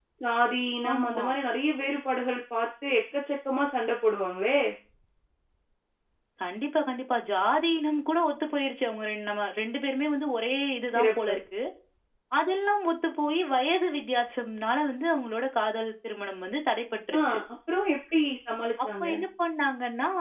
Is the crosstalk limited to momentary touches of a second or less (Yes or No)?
Yes